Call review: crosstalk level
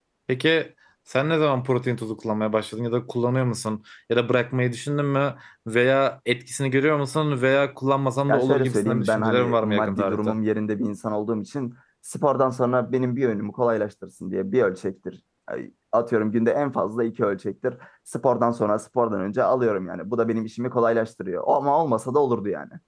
present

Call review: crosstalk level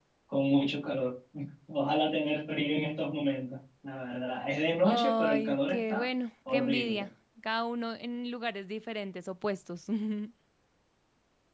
present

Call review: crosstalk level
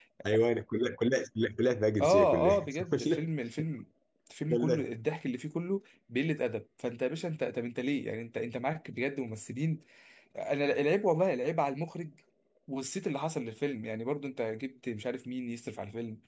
present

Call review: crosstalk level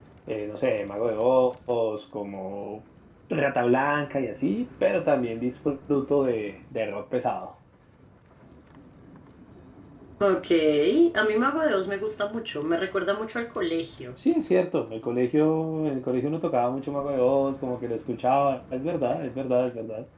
none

